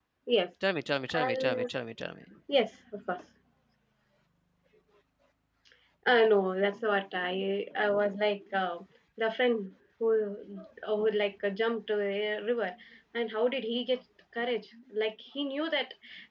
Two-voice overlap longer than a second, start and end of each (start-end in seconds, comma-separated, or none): none